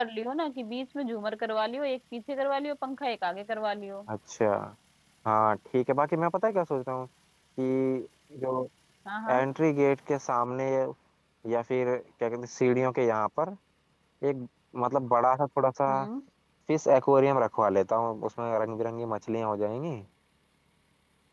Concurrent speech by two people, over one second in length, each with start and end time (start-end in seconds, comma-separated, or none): none